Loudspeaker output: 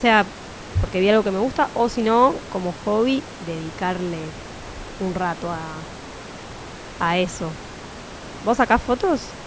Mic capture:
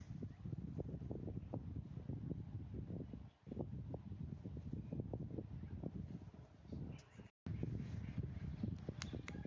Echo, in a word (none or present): none